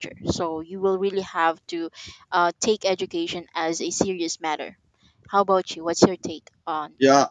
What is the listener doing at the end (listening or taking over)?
taking over